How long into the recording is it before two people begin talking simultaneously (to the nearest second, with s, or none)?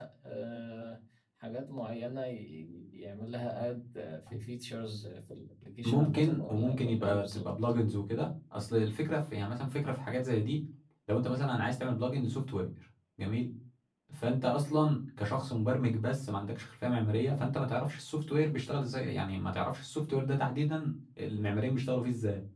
6 s